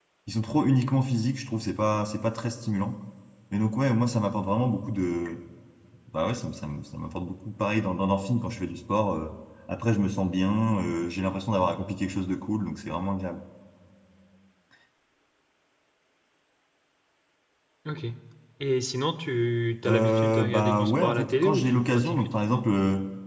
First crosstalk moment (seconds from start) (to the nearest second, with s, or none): 20 s